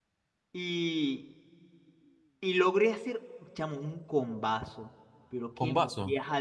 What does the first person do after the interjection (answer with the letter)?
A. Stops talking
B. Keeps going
B